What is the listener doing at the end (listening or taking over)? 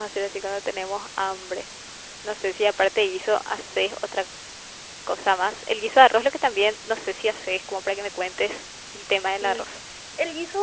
taking over